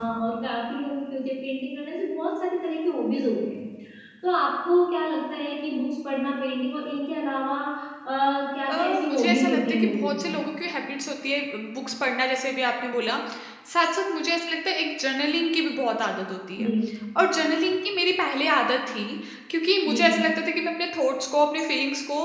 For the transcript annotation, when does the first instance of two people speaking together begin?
8.7 s

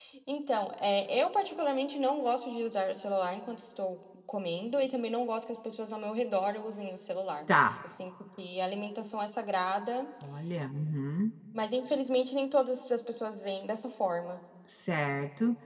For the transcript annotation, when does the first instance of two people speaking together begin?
none

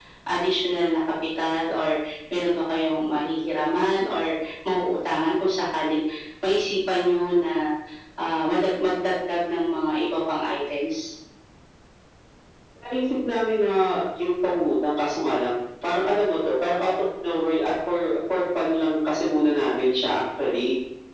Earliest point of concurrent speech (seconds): none

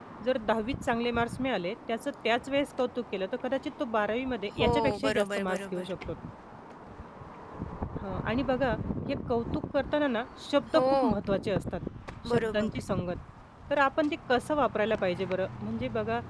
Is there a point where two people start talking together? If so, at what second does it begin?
4.6 s

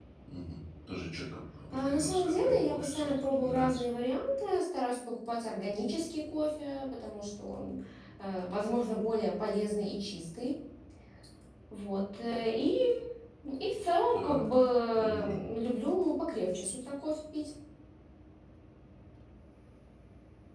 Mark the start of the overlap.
1.7 s

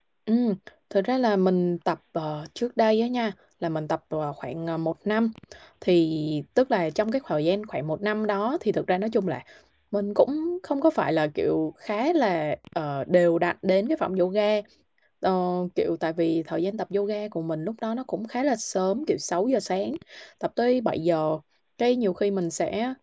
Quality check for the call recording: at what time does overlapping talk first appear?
none

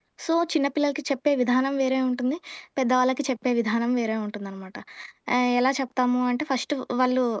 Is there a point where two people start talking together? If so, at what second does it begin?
none

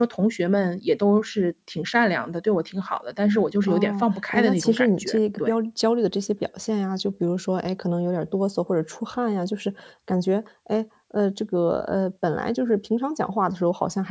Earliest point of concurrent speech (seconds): 3.6 s

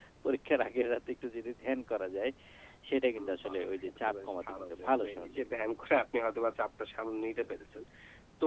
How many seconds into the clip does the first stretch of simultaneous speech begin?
3.2 s

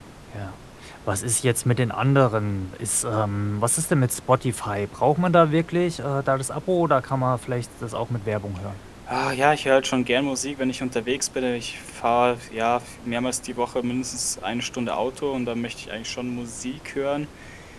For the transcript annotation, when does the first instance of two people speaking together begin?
none

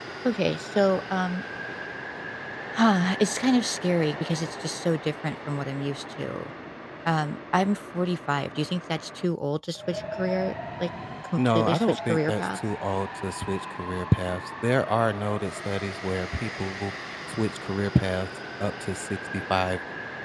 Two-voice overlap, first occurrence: 11.4 s

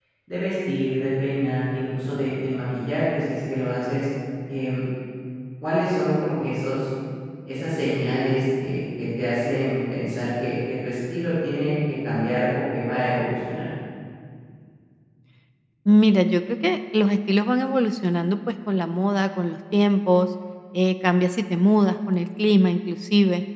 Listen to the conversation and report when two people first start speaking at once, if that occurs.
none

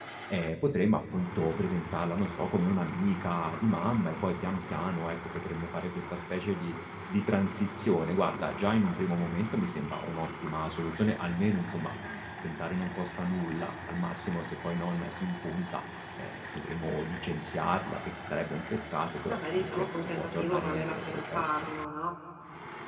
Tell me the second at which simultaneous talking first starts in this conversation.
19.3 s

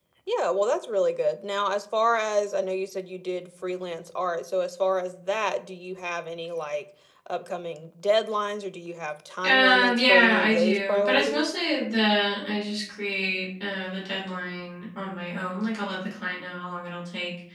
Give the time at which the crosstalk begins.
9.4 s

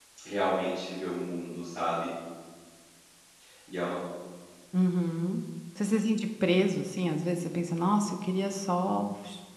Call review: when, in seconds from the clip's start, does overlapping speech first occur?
none

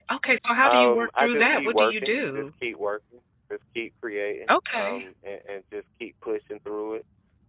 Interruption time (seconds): 0.6 s

